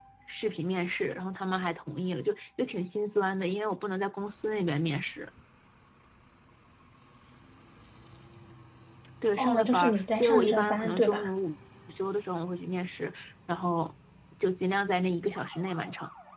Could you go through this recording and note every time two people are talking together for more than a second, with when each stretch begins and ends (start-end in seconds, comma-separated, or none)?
9.4-11.3